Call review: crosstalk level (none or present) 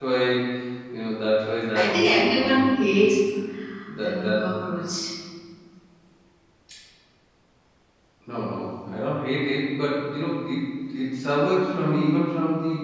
present